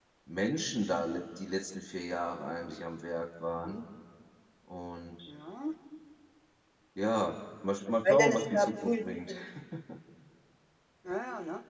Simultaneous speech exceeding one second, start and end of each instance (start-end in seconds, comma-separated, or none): 8.1-9.4